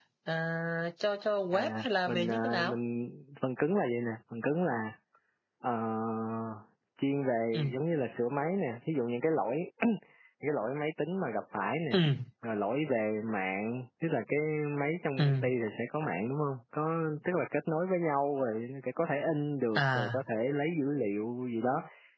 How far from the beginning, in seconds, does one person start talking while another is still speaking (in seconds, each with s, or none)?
1.5 s